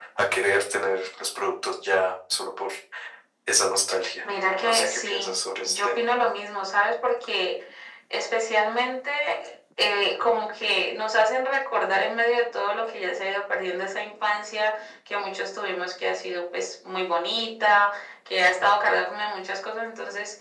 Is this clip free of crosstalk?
No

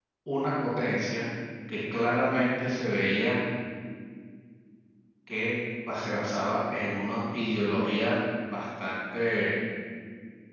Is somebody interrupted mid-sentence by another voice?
No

